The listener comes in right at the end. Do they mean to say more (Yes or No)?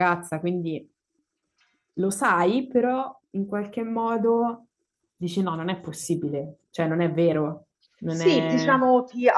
Yes